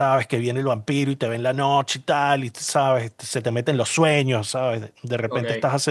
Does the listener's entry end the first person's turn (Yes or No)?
No